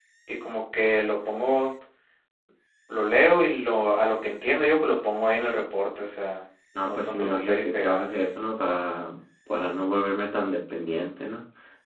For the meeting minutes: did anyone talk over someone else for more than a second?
Yes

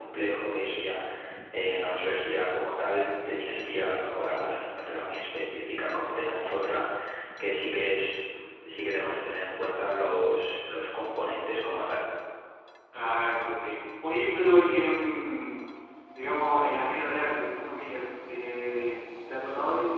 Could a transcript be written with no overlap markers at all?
Yes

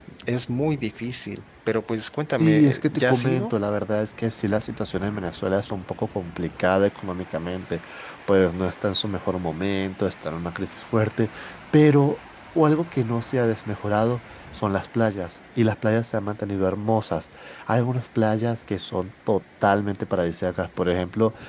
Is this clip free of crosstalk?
No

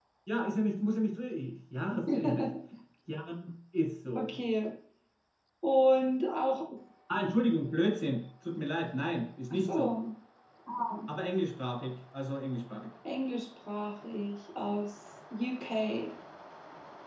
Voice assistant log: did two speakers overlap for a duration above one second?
No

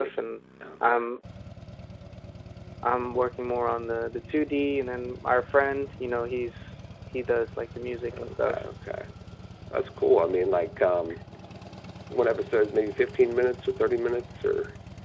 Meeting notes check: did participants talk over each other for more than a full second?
No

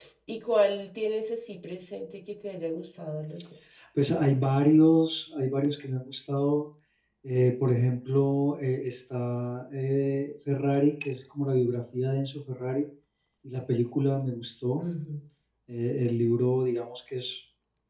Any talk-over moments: No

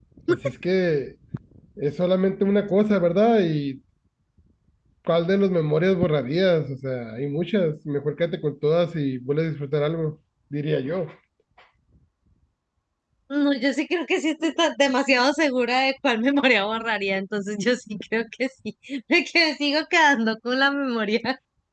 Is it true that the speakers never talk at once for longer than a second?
Yes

